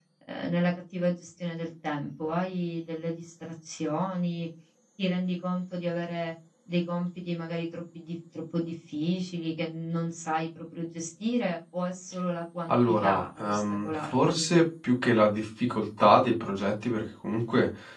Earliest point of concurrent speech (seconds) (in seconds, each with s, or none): 12.7 s